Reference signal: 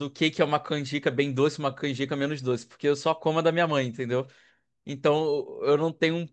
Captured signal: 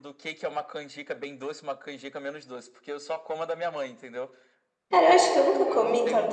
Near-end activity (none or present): present